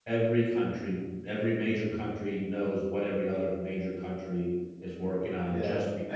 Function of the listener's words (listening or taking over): taking over